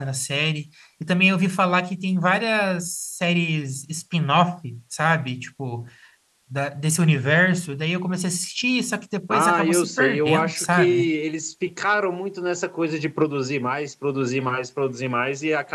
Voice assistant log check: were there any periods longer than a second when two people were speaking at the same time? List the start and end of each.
9.3-11.1

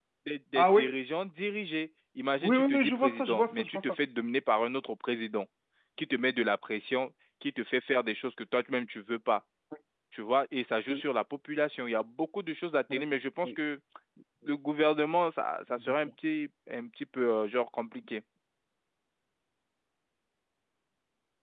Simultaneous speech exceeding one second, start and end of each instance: 2.4-3.8

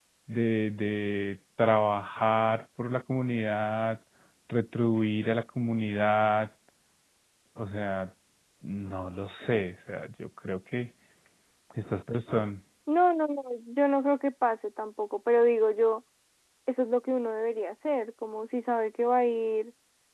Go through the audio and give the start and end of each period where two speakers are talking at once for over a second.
none

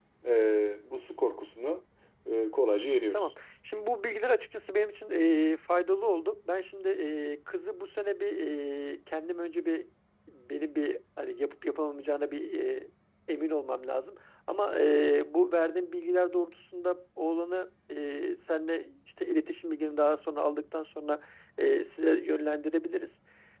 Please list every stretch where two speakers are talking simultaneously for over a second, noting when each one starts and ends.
none

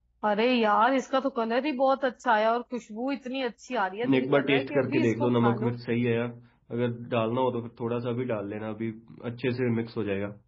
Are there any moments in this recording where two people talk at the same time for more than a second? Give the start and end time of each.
4.1-5.7

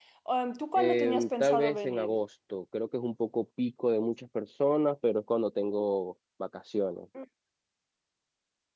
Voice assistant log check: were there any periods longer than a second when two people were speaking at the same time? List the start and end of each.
0.8-2.2

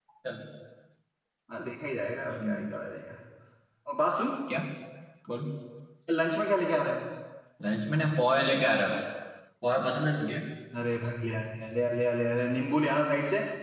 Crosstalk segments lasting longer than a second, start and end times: none

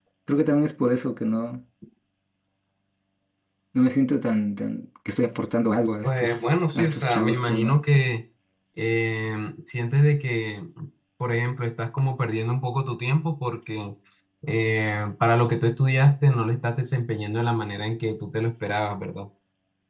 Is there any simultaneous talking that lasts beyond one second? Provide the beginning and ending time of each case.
6.0-7.8

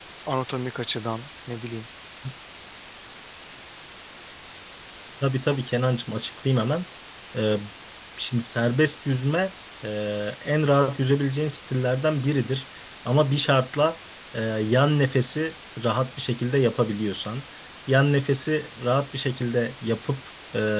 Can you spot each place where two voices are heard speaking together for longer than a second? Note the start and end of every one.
none

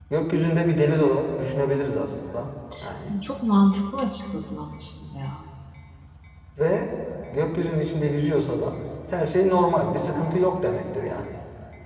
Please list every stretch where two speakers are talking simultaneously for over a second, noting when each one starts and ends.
none

